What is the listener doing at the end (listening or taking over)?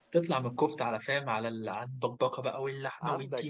taking over